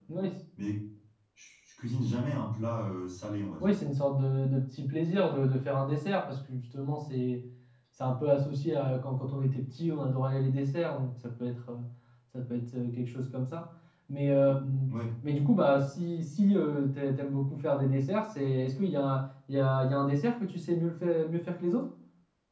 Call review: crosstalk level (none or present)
none